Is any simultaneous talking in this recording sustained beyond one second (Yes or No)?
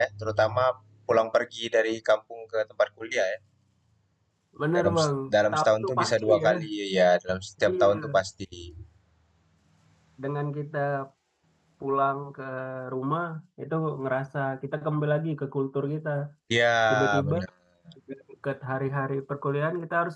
Yes